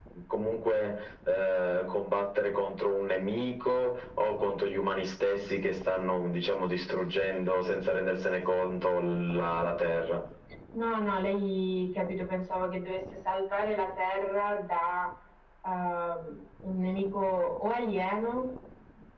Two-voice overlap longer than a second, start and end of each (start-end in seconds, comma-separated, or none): none